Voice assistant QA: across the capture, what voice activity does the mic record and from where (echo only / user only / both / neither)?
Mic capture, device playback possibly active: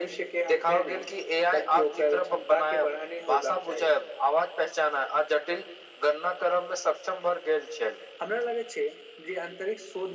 echo only